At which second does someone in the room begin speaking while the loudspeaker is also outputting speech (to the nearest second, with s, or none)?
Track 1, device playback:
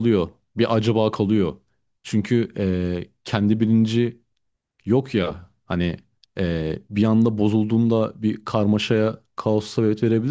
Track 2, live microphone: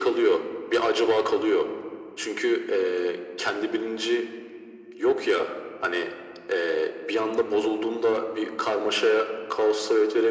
none